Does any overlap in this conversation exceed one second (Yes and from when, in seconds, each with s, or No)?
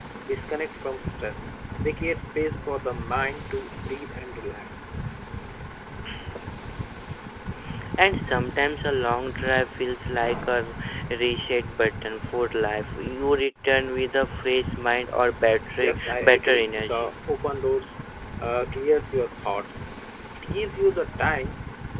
Yes, from 15.8 s